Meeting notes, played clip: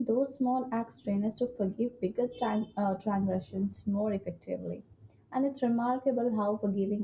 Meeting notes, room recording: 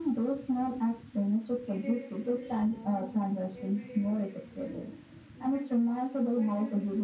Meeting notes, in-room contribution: present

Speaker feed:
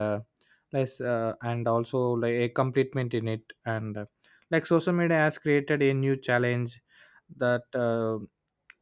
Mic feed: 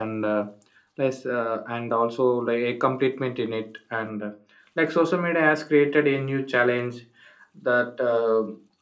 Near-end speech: none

